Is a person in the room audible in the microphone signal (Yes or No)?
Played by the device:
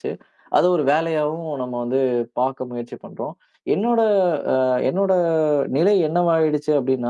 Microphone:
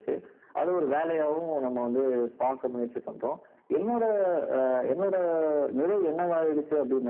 No